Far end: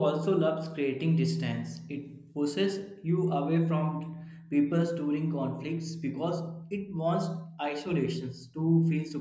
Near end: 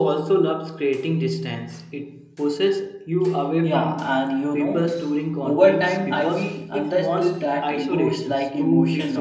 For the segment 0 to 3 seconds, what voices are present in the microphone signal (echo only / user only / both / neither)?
echo only